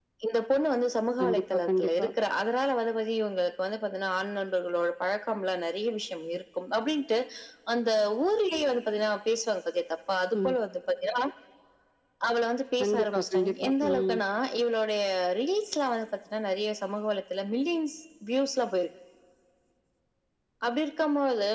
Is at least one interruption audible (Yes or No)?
Yes